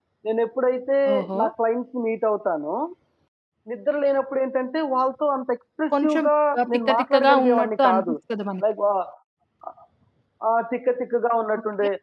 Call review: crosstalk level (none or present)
present